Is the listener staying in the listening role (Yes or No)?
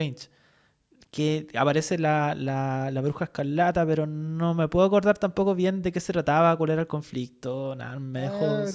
No